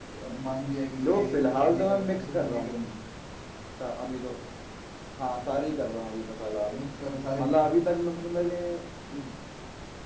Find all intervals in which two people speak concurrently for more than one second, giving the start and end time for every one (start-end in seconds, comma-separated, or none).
1.0-2.7